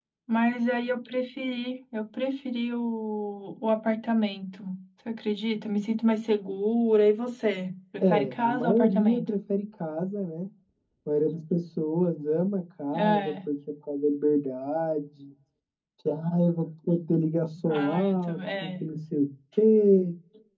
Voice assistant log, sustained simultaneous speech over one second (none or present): present